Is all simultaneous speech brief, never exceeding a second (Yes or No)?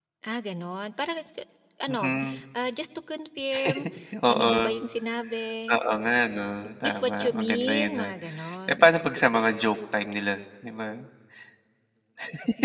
No